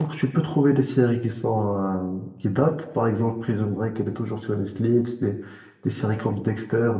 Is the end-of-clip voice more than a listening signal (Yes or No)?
No